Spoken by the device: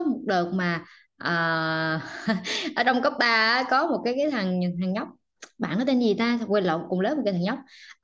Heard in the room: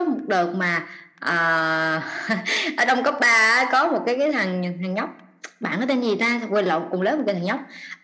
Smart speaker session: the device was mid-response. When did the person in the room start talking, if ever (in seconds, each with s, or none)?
none